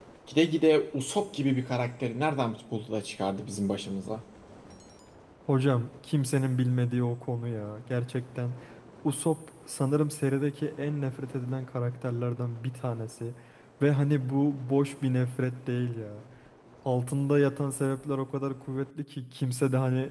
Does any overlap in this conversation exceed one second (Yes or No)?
No